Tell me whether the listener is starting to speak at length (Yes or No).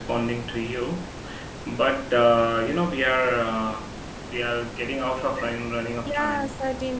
Yes